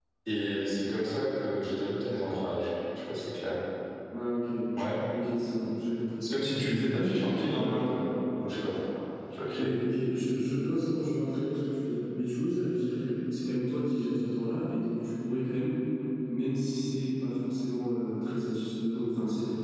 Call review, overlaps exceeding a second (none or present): present